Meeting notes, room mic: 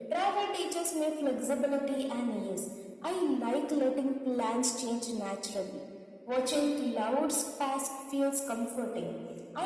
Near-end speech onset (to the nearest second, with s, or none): none